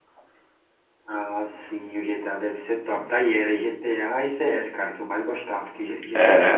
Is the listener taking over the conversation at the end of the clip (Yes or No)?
No